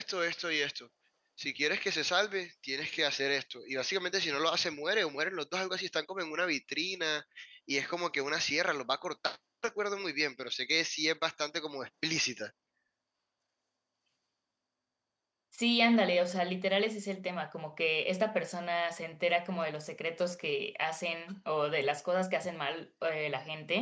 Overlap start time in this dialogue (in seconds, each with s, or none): none